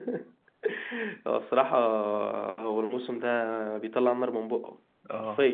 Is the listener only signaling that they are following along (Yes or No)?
No